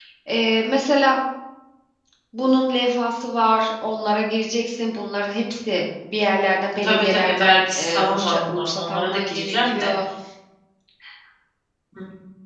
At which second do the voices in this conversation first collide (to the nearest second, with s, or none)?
7 s